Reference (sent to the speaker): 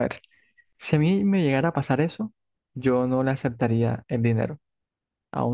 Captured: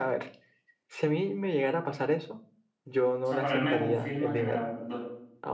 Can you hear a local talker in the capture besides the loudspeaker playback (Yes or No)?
Yes